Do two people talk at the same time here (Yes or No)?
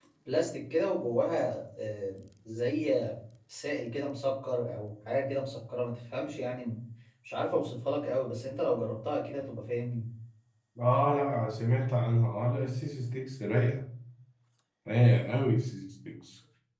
No